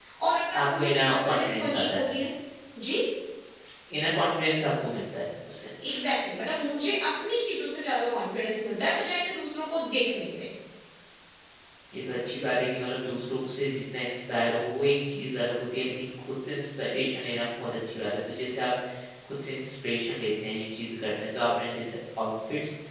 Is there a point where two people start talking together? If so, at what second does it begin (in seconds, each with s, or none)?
0.6 s